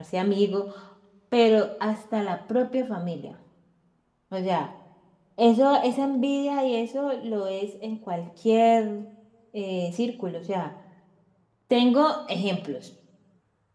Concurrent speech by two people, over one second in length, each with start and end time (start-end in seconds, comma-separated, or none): none